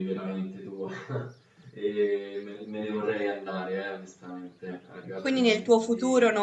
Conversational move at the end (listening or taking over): taking over